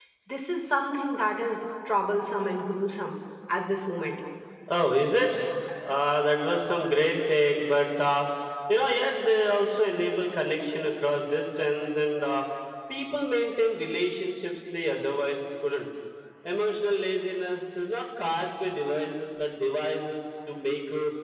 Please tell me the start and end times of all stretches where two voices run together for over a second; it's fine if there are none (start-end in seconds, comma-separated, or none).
none